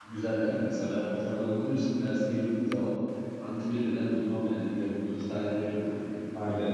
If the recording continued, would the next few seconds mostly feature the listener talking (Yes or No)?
Yes